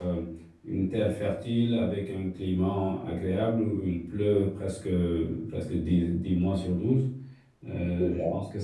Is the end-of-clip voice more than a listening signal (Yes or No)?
No